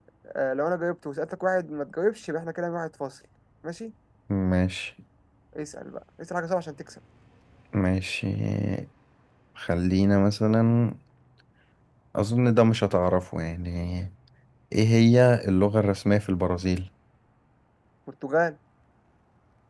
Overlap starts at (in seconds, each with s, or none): none